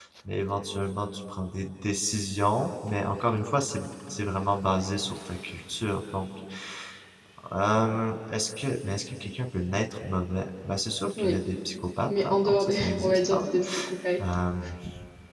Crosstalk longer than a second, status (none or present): present